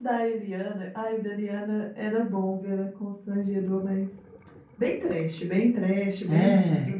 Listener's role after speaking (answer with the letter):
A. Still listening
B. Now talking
A